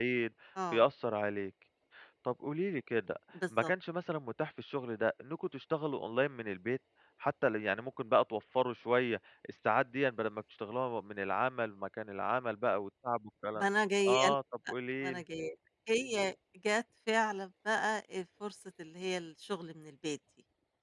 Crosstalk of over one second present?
No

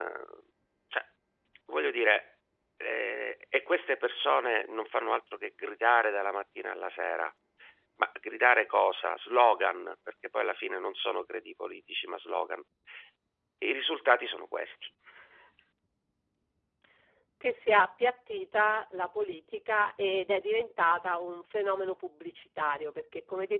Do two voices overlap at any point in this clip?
No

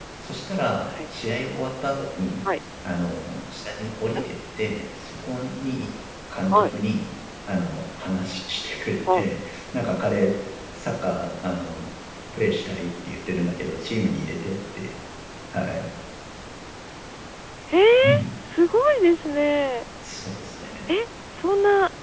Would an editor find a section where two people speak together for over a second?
No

